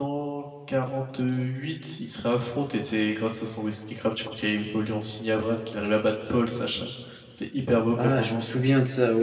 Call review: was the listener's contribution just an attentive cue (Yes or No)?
No